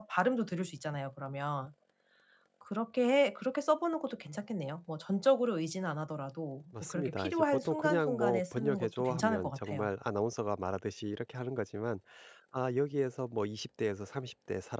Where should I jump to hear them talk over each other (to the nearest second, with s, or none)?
7 s